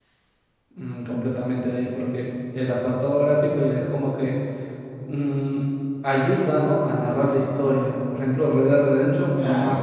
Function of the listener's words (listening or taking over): listening